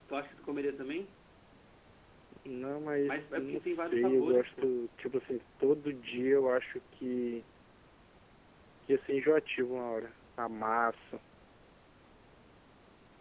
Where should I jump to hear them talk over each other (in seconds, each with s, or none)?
3.1 s